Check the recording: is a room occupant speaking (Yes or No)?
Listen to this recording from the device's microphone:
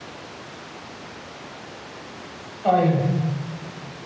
Yes